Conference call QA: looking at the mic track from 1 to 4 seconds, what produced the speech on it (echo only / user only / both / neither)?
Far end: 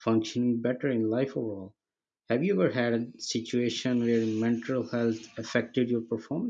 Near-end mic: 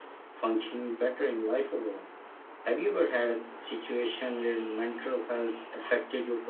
echo only